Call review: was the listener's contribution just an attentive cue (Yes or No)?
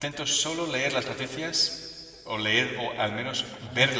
Yes